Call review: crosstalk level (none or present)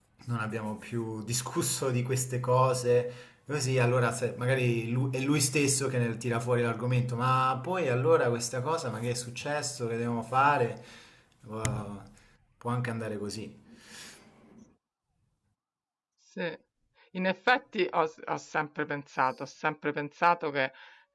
none